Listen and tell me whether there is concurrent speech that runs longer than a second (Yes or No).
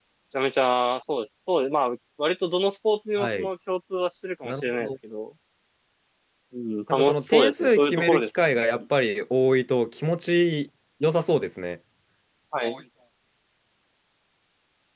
Yes